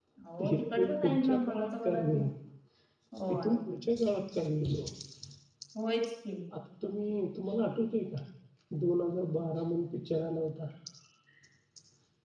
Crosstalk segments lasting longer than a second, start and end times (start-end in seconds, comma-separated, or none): 0.5-2.2